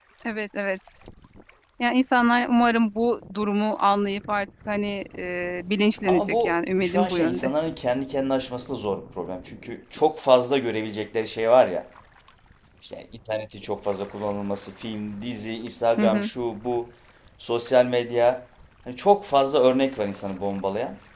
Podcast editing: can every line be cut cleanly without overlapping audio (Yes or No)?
No